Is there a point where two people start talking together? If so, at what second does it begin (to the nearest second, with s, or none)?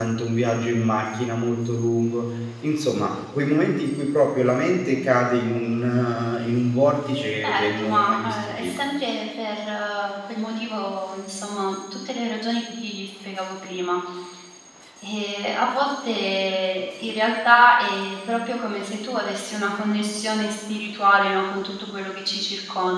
7 s